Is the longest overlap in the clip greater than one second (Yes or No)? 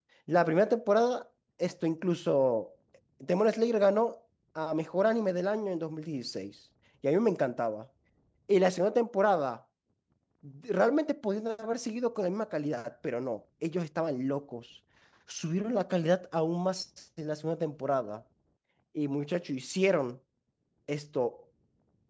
No